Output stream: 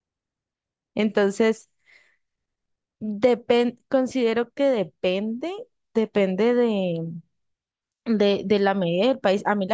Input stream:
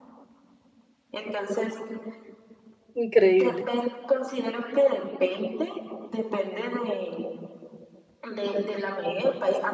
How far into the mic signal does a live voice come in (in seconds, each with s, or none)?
3.0 s